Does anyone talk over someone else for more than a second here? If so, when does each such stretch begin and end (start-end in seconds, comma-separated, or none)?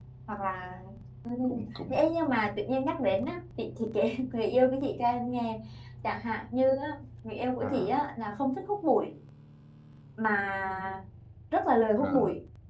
none